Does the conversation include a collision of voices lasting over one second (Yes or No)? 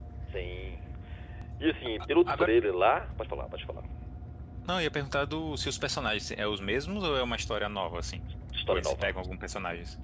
No